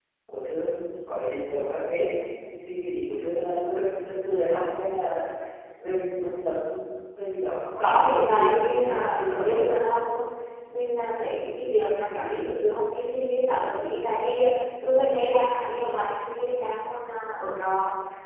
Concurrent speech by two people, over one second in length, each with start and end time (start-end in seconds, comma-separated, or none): 7.8-9.8